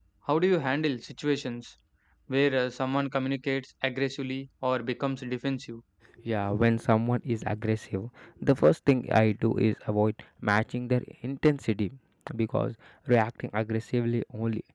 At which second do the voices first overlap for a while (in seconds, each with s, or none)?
none